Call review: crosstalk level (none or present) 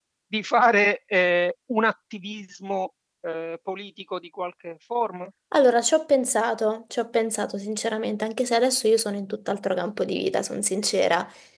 none